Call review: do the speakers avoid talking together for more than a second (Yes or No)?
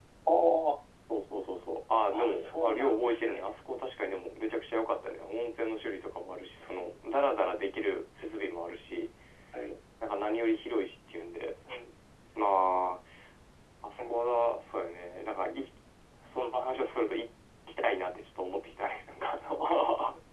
No